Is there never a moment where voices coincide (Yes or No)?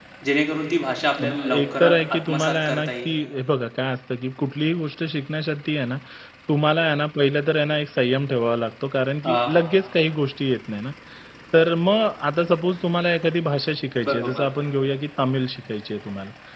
No